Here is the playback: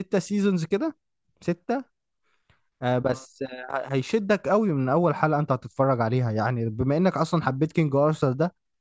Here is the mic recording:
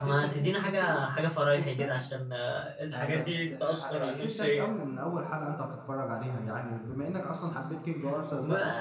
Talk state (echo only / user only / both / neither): both